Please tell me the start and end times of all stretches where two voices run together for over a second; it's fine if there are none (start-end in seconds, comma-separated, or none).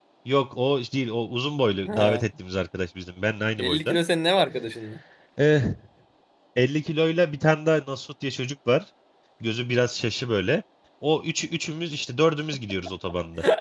none